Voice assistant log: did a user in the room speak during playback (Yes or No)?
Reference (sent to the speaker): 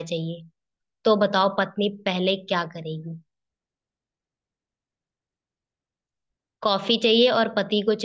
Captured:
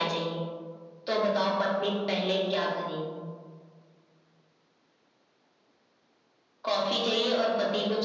No